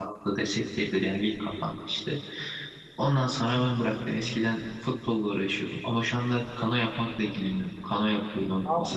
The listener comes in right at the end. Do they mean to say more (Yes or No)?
No